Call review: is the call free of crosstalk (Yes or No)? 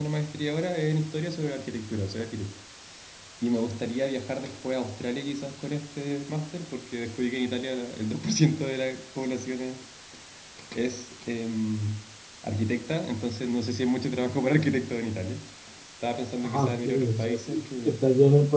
No